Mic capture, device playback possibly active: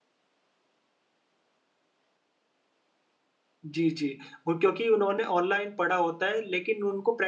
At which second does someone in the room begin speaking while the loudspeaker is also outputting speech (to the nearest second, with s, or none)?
4 s